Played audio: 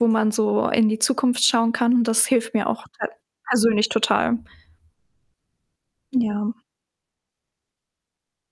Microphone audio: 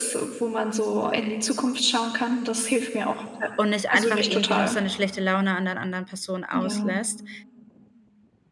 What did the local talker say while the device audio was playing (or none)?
und nicht einfach irgendwie nur seine schlechte Laune an der anderen Person auslässt,